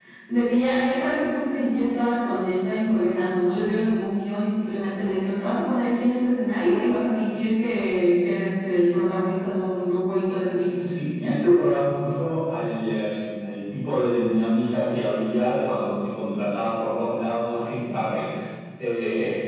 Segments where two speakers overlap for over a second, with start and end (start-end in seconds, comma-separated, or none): none